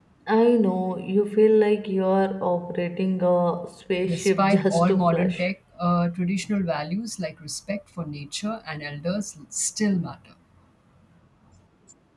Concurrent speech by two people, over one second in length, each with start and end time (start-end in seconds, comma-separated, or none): 4.0-5.5